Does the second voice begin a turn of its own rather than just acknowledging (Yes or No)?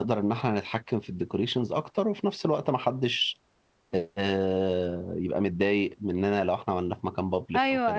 Yes